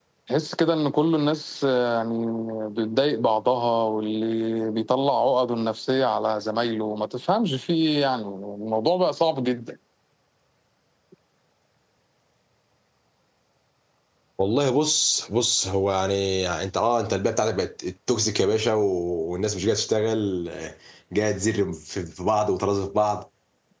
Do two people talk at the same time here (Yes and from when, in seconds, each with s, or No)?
No